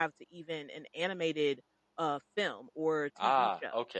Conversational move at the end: taking over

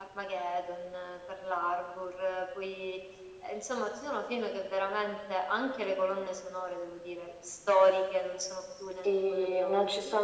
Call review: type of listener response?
taking over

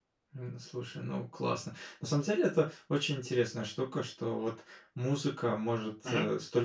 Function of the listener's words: listening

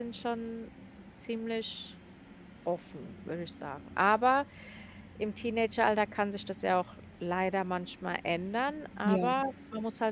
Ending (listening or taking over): listening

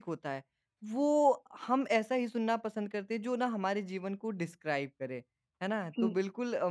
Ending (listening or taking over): listening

